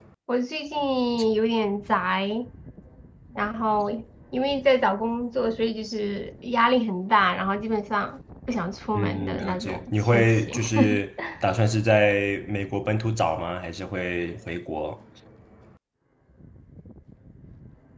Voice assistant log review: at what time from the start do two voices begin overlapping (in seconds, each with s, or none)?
8.9 s